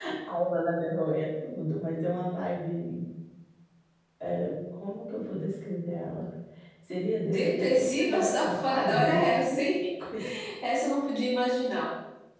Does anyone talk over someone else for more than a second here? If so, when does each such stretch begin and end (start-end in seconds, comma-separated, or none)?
7.2-9.2